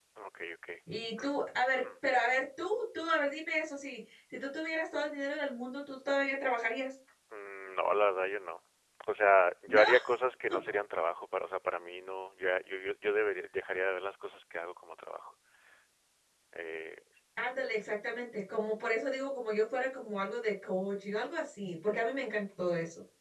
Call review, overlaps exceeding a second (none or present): none